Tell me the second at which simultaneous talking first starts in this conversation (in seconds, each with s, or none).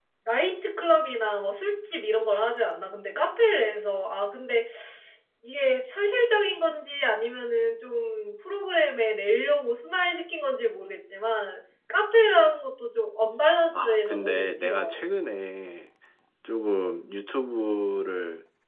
13.7 s